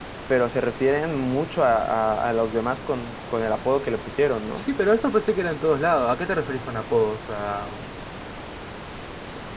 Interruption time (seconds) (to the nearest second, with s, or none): none